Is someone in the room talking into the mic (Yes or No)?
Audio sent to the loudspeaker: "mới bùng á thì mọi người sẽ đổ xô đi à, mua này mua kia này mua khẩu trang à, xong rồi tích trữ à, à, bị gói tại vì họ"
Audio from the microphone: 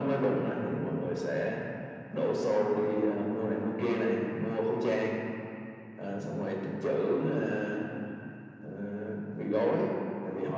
No